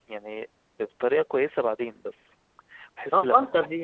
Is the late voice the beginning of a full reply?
Yes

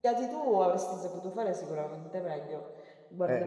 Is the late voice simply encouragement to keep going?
No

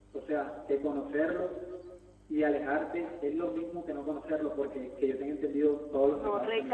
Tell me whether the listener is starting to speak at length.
Yes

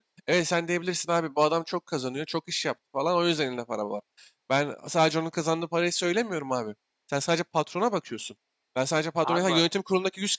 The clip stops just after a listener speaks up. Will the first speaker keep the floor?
Yes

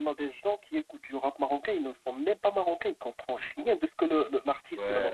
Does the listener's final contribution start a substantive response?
Yes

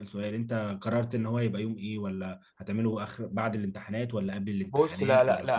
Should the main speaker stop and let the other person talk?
Yes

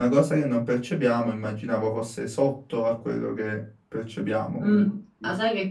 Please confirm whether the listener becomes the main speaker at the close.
Yes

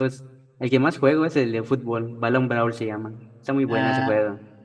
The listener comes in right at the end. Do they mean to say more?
Yes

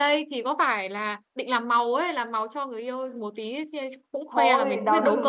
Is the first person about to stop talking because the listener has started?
Yes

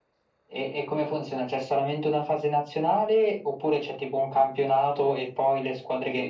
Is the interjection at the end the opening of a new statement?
Yes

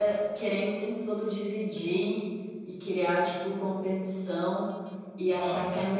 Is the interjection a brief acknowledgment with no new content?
Yes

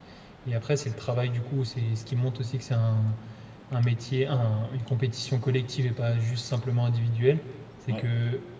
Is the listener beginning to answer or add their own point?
No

